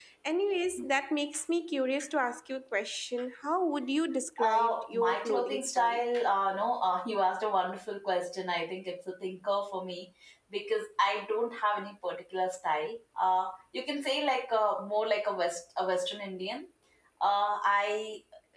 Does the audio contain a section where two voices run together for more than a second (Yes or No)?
Yes